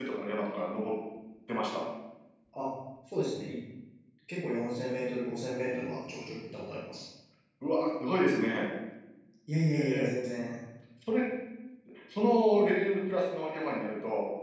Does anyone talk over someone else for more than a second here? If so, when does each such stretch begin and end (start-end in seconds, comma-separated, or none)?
none